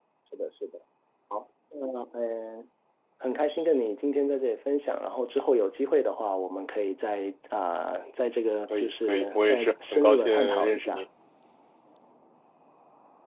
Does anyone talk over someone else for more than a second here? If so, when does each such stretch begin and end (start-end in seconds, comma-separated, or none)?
8.7-11.0